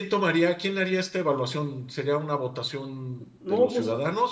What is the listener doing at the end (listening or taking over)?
listening